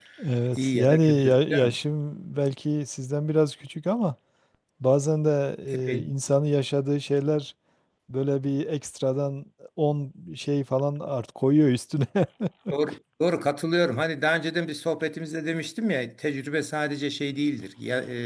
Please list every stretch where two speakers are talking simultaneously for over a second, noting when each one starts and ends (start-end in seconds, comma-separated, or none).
0.5-1.8